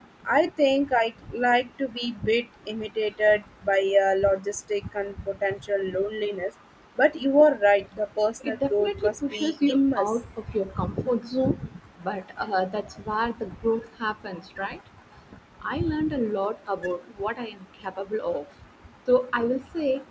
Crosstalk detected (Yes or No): Yes